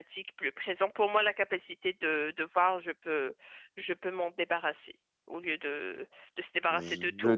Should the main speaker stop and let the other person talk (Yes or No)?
Yes